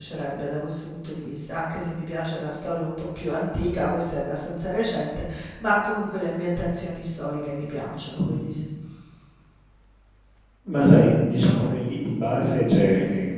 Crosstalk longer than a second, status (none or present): none